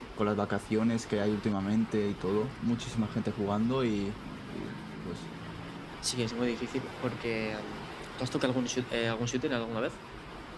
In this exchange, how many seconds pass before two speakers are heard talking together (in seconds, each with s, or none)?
none